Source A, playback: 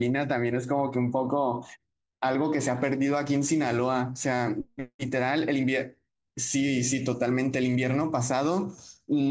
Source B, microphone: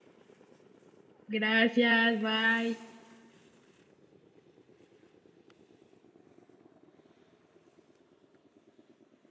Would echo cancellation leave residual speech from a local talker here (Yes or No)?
Yes